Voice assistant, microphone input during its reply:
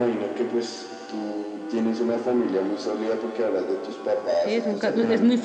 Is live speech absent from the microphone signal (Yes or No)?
No